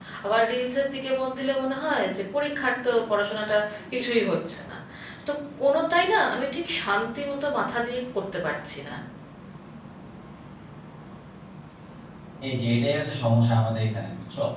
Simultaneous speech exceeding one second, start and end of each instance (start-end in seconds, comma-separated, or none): none